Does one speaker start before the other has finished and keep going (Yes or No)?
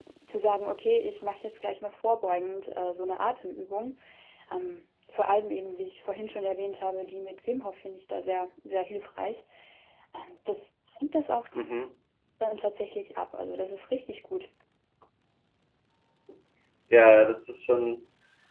No